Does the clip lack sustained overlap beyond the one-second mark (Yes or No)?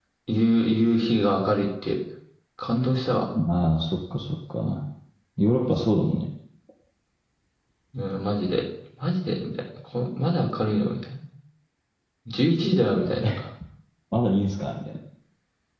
Yes